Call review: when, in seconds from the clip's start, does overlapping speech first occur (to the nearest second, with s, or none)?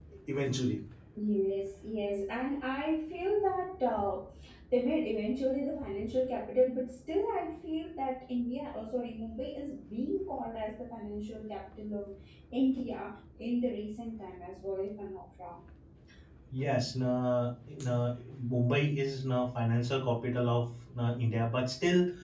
none